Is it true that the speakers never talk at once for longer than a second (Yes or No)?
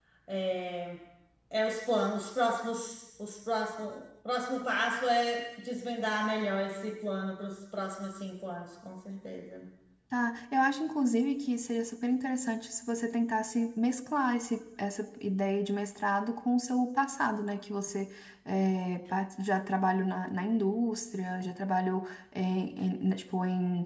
Yes